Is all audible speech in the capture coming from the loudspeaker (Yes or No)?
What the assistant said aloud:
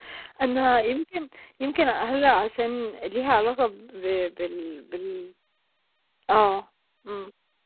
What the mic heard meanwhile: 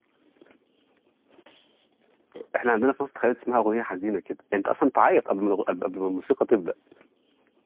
No